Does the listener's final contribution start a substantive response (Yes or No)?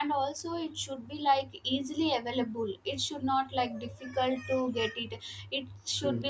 No